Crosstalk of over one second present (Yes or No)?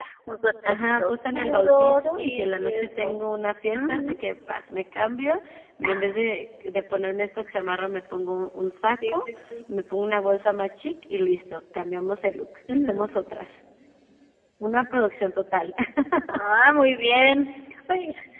Yes